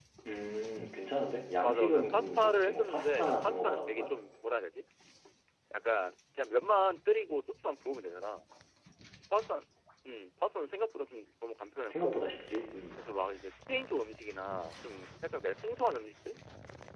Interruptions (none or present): present